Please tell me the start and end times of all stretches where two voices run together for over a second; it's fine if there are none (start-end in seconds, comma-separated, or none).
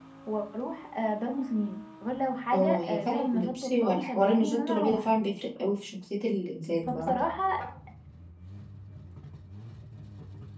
2.5-5.1